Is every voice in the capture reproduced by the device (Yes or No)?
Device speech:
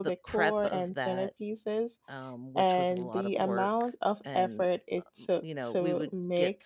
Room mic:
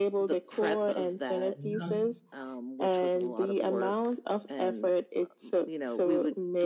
No